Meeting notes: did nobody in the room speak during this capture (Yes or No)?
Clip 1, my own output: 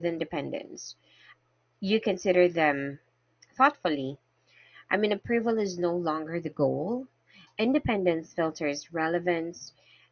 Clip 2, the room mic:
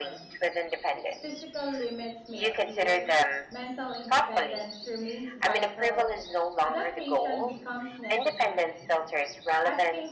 No